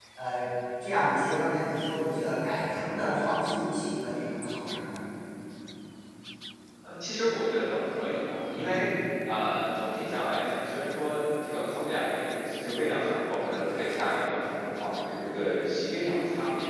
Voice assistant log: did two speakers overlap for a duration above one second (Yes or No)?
No